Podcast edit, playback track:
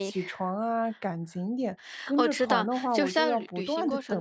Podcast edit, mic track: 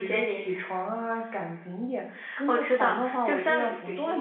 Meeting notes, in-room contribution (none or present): none